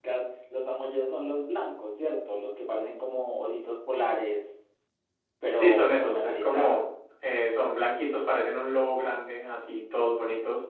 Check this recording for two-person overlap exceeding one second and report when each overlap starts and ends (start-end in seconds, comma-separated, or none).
5.5-6.8